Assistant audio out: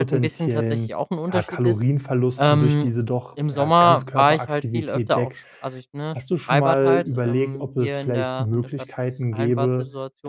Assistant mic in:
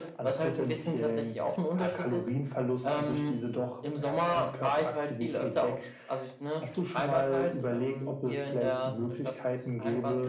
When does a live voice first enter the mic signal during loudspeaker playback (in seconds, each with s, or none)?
none